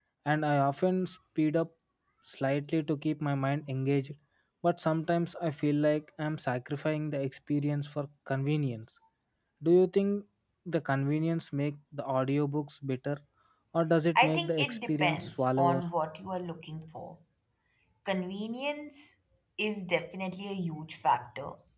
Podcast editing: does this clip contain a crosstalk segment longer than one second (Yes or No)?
Yes